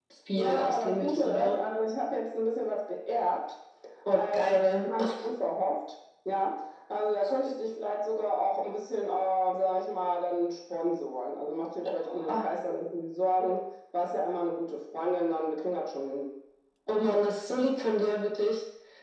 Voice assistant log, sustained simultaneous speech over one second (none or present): present